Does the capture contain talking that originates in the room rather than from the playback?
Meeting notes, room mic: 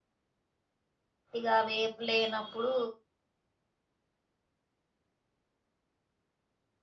Yes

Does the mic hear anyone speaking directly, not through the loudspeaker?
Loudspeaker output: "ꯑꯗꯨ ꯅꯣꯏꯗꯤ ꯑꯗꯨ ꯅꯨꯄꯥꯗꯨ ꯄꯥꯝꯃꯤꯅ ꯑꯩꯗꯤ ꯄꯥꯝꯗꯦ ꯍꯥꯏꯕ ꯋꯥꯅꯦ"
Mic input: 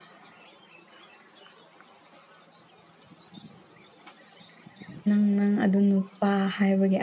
Yes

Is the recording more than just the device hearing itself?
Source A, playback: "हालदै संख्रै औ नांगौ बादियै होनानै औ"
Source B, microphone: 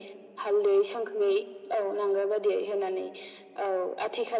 No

